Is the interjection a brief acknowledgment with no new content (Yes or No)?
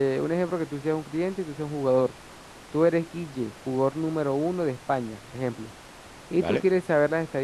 Yes